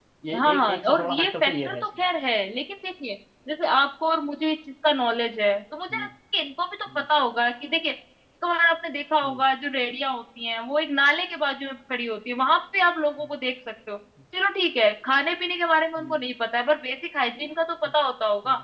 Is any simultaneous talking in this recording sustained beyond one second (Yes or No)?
Yes